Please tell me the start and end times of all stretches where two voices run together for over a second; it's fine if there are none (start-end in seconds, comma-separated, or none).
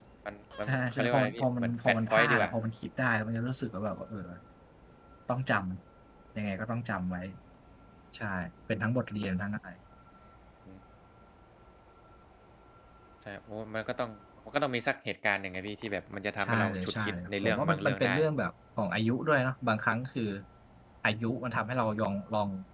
0.7-2.5, 16.4-18.1